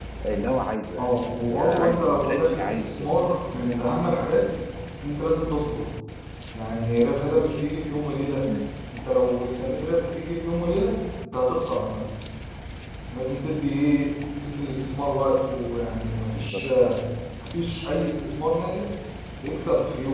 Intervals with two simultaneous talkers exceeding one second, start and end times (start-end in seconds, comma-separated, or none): 1.5-3.3